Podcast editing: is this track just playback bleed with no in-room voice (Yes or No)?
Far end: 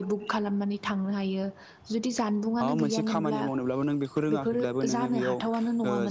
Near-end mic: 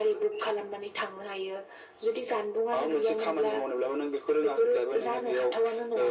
Yes